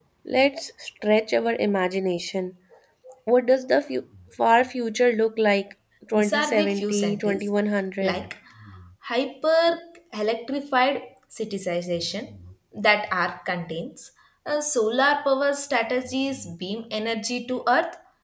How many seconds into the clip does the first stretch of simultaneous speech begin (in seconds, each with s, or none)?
6.1 s